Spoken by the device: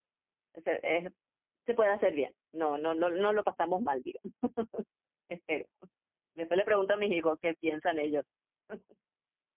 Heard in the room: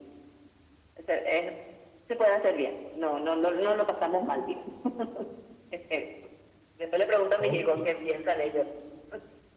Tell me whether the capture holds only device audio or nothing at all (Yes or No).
No